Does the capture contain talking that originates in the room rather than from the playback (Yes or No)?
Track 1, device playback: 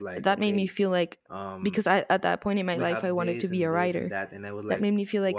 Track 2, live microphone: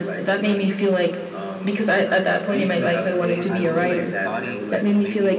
Yes